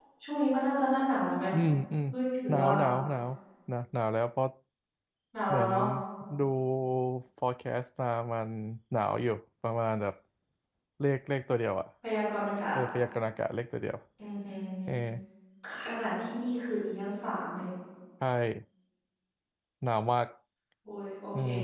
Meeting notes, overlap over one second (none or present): none